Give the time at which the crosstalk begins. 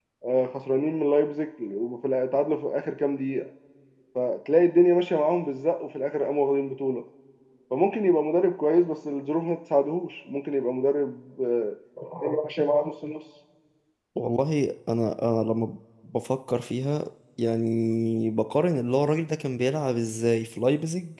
none

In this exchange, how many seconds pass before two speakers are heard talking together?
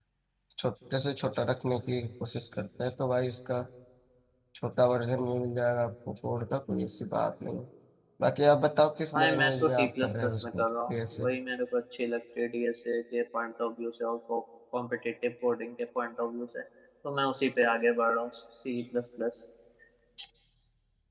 9.1 s

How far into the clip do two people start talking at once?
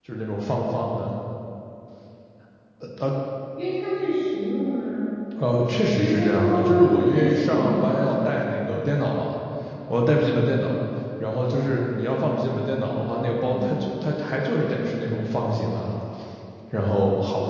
5.9 s

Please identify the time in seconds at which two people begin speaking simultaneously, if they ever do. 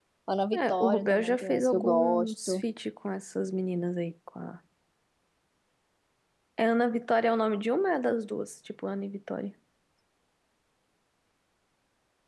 0.5 s

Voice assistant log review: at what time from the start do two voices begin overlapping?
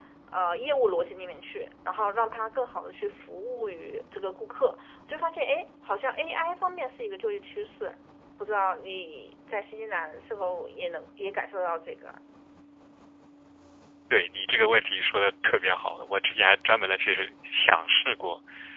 none

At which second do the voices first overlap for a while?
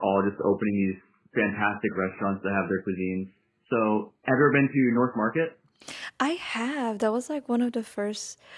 none

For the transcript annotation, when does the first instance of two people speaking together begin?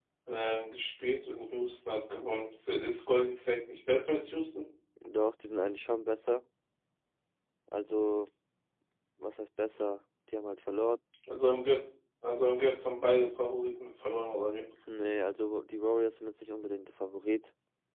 none

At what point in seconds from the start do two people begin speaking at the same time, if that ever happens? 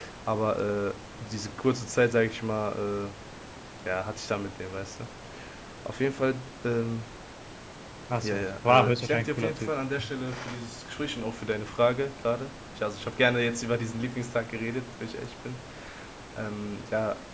8.2 s

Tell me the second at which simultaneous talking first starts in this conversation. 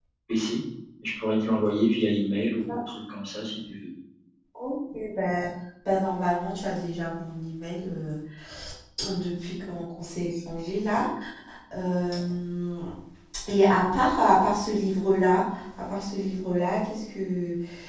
none

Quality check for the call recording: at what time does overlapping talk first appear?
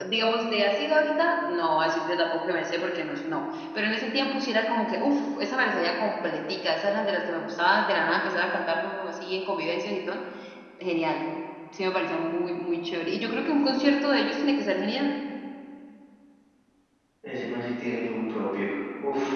none

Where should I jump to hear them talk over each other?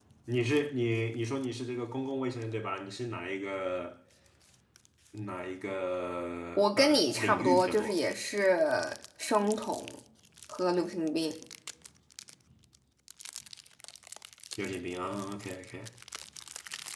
6.6 s

